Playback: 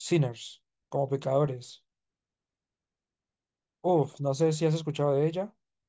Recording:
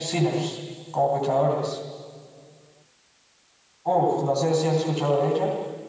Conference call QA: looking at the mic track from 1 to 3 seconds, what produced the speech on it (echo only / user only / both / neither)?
echo only